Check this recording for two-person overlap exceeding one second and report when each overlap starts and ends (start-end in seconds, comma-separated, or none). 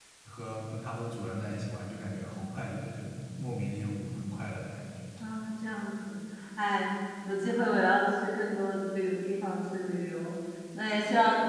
none